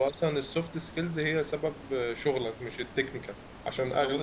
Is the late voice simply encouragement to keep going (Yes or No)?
Yes